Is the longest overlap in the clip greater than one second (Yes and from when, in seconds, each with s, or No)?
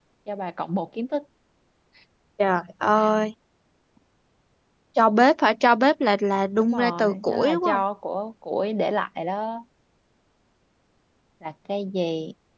Yes, from 6.6 s